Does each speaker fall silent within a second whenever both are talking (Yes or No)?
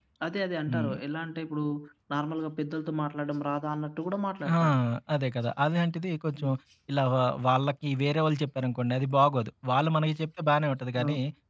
Yes